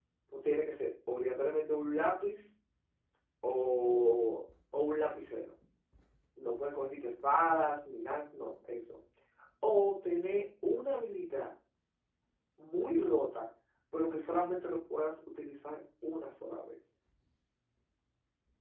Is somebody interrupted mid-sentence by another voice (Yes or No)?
No